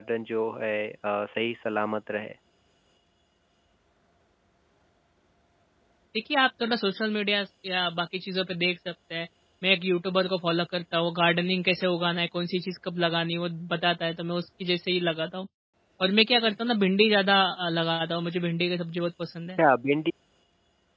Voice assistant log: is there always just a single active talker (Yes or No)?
Yes